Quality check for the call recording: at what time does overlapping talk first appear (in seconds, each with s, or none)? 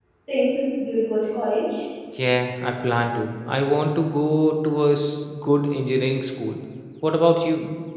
none